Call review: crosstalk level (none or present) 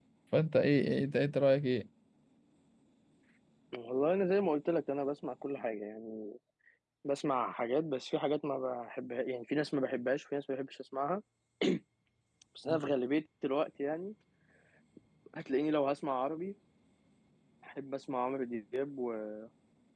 none